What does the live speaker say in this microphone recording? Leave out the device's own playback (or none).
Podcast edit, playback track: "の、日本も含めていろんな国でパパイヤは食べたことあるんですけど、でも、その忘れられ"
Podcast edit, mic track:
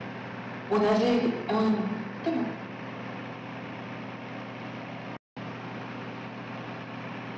同じうん。でも、